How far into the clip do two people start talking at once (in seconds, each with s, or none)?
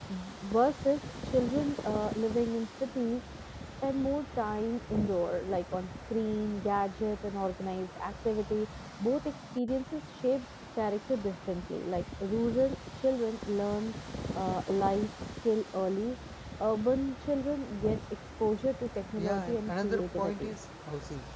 19.2 s